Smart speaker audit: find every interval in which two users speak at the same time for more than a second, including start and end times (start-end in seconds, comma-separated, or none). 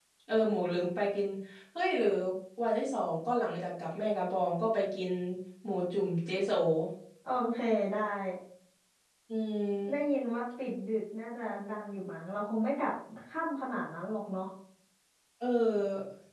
none